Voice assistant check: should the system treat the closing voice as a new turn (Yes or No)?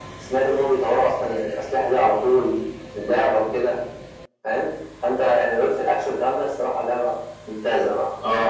Yes